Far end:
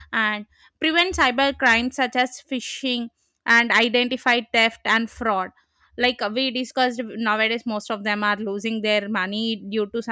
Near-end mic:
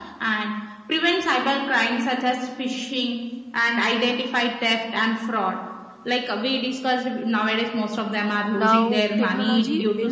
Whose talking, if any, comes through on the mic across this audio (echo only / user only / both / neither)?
both